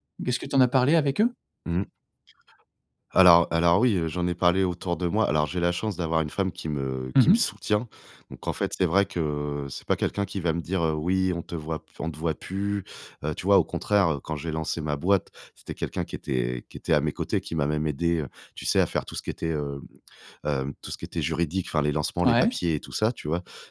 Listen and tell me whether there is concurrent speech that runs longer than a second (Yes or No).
No